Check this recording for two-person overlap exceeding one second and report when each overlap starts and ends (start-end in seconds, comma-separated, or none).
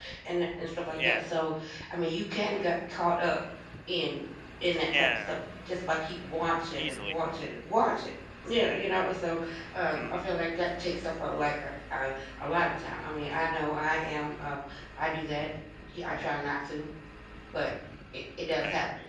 none